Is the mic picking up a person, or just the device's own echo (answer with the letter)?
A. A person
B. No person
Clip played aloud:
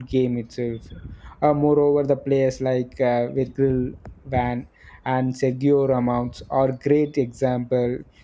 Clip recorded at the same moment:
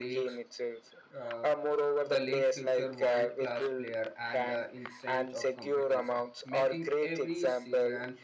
A